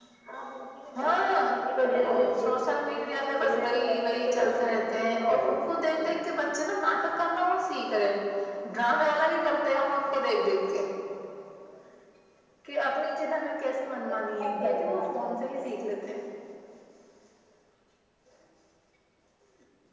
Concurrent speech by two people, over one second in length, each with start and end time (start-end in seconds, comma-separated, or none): 2.0-6.1, 14.1-15.7